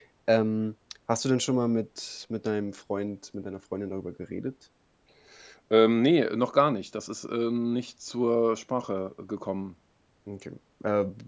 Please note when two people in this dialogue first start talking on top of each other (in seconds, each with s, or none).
none